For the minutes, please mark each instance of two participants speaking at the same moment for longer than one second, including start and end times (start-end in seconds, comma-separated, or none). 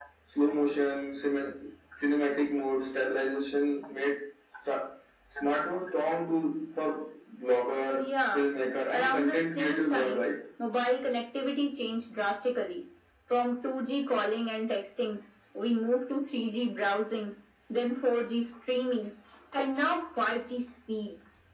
8.9-10.2